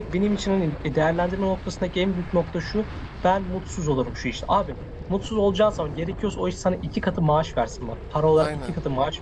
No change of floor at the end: Yes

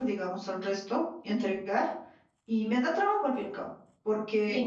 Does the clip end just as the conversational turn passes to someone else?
No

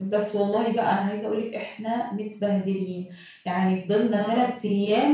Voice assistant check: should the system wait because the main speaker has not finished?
Yes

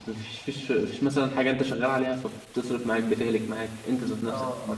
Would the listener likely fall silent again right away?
No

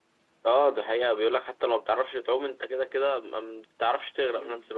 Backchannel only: No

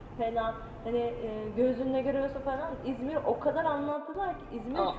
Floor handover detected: Yes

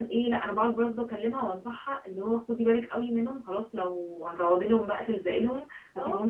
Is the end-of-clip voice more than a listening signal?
No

